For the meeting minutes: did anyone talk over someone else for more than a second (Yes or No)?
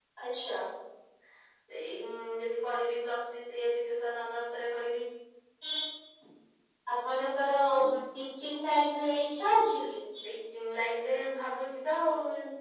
No